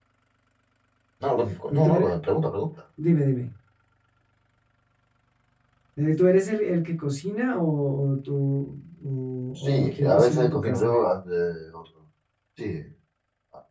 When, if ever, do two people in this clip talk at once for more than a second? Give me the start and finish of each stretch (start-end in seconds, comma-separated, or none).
9.6-10.9